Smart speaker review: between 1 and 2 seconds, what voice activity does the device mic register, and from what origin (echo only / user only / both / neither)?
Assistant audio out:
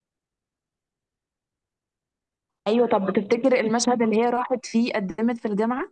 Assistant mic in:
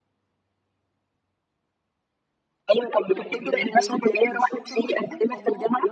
neither